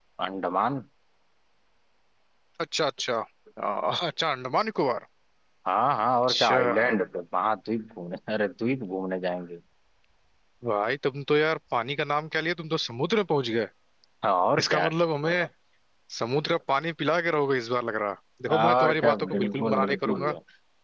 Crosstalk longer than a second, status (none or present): present